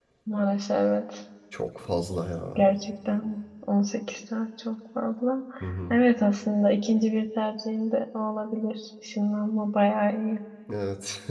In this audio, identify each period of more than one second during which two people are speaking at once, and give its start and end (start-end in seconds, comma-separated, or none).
none